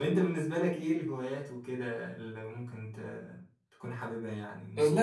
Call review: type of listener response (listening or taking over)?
taking over